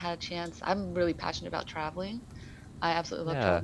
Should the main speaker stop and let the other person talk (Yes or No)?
No